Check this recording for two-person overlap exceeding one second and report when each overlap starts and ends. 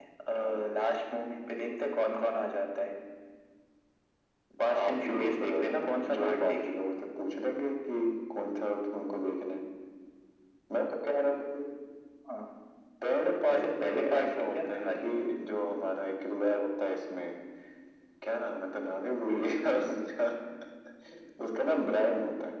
4.7-6.7, 13.5-15.1

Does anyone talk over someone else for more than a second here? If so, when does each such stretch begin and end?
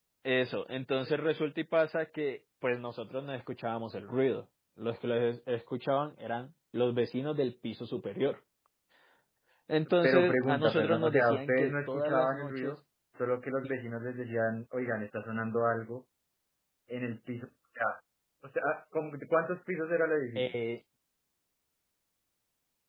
10.0-12.8

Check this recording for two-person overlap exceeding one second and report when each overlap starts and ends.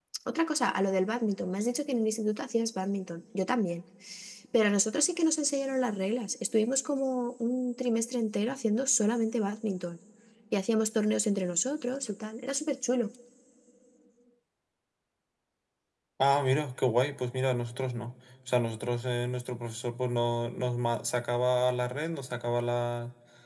none

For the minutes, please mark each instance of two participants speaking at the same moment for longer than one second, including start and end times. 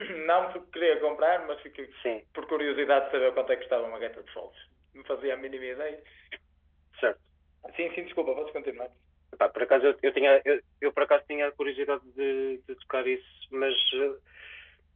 none

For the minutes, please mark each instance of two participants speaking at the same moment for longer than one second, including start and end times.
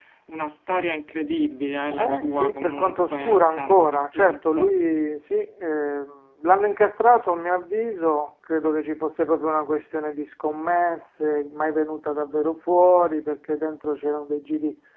1.9-4.7

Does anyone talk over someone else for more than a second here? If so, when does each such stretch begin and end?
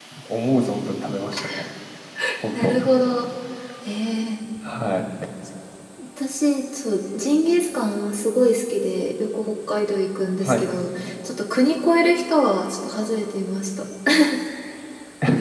none

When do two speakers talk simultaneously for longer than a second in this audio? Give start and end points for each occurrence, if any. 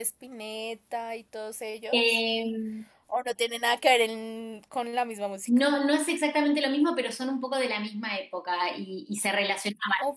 none

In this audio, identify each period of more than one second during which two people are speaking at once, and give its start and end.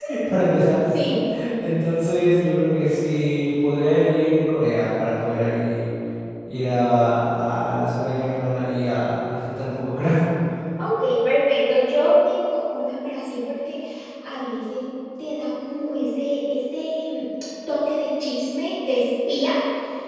none

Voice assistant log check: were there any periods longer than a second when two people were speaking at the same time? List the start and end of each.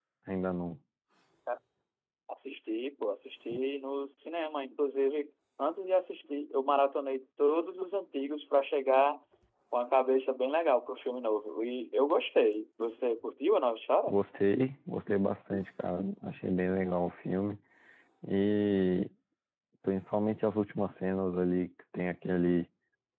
none

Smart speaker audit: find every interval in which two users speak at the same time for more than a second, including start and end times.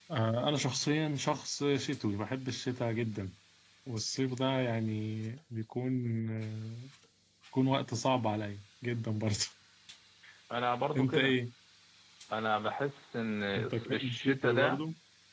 13.6-14.8

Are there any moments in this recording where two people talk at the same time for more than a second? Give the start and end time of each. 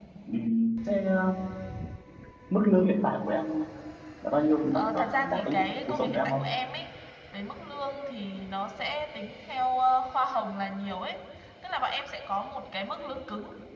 4.7-6.6

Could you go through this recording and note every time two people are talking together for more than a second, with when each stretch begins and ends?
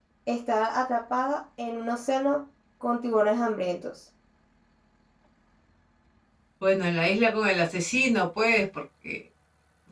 none

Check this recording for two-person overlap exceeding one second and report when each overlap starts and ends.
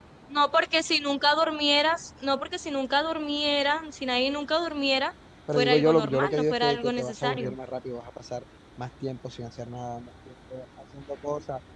5.6-7.5

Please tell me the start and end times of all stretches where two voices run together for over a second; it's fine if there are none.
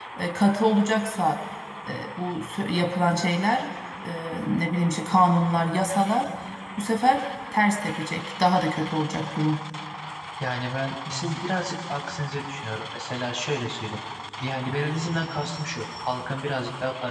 none

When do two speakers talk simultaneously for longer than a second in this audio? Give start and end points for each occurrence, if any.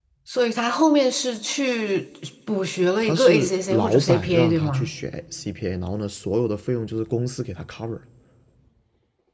3.0-4.9

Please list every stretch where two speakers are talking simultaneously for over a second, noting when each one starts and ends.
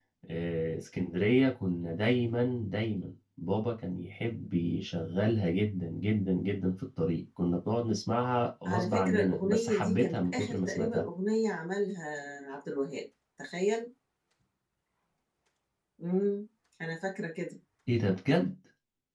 8.6-11.1

